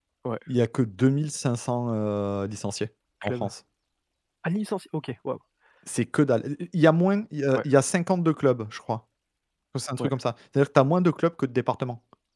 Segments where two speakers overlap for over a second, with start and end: none

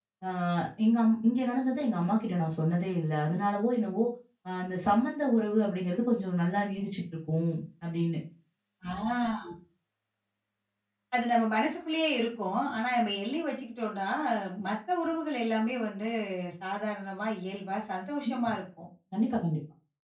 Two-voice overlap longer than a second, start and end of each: none

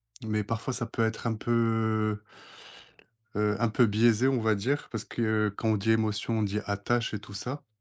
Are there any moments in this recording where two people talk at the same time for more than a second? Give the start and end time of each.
none

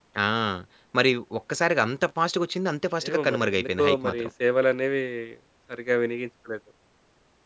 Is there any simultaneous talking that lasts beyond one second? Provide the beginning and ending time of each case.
3.1-4.3

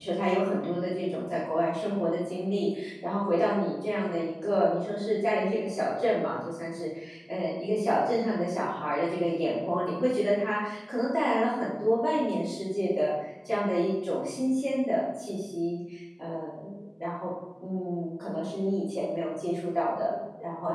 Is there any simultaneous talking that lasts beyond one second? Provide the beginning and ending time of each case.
none

